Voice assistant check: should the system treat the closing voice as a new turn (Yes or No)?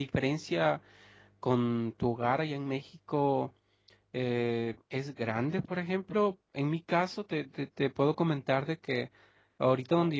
No